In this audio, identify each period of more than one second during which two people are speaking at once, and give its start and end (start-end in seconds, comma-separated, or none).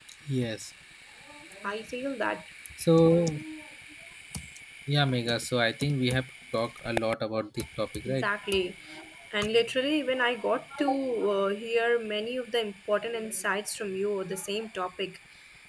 none